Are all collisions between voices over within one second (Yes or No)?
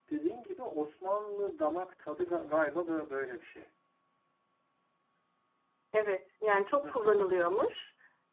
Yes